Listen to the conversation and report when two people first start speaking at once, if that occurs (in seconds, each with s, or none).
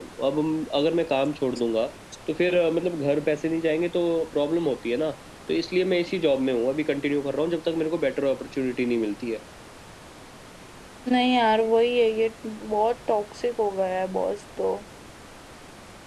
none